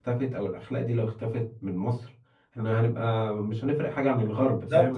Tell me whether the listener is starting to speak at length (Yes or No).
Yes